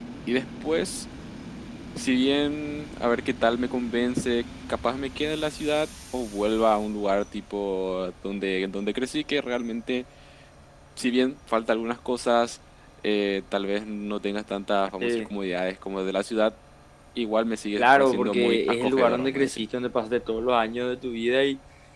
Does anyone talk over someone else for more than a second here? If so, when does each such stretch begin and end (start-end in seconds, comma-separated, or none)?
17.8-19.6